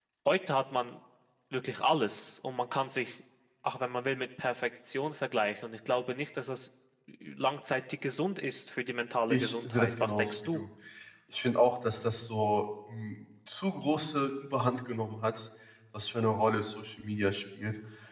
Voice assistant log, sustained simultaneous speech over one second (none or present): present